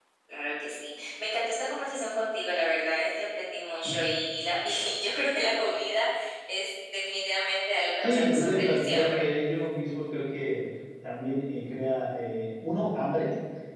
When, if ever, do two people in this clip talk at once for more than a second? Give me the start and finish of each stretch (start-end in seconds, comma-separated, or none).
8.0-9.2